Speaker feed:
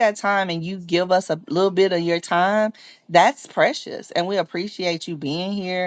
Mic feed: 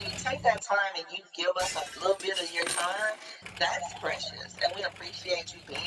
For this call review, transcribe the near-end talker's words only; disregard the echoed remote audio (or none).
none